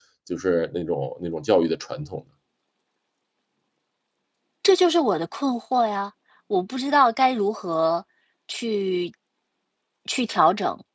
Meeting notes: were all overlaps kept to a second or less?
Yes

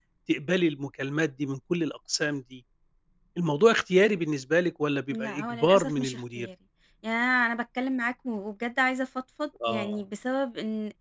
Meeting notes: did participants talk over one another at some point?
Yes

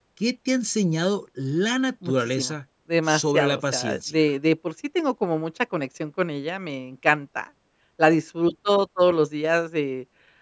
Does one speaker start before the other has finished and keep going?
Yes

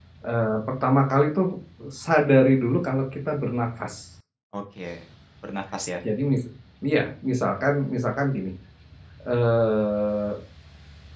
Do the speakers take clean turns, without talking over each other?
Yes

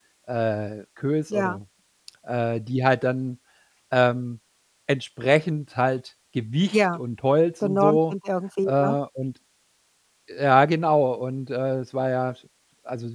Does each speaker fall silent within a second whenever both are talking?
Yes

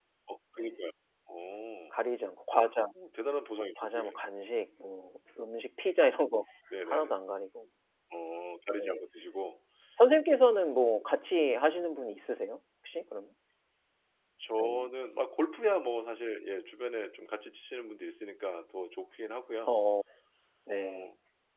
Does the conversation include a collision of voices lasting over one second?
No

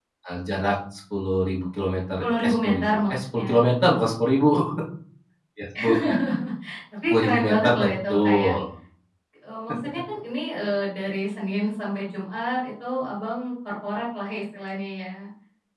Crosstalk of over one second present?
Yes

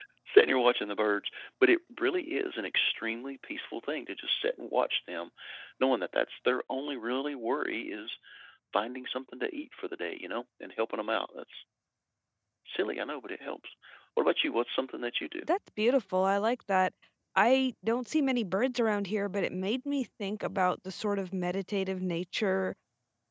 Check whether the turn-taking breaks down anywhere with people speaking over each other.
No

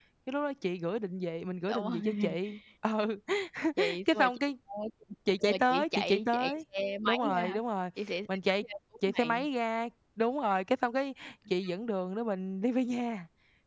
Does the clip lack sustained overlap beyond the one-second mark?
No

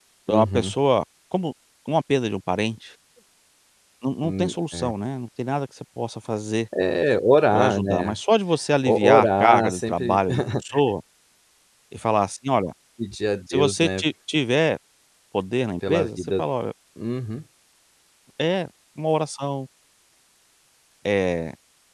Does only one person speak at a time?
No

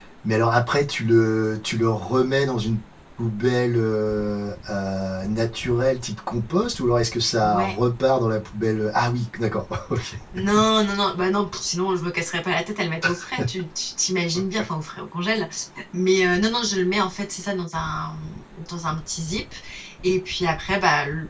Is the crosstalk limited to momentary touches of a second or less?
Yes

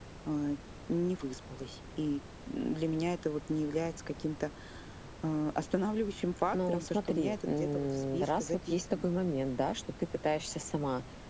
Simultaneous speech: Yes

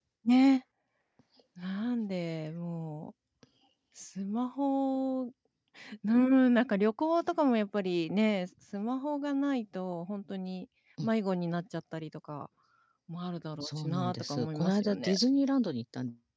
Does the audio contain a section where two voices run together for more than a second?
Yes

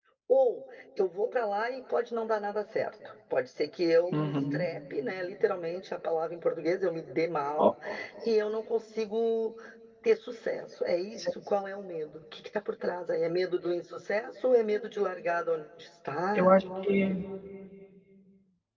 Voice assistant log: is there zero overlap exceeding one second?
Yes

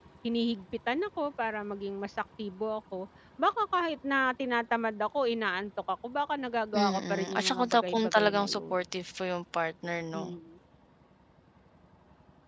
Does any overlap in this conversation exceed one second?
Yes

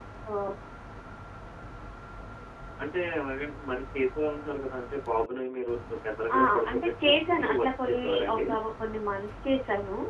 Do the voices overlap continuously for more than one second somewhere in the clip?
Yes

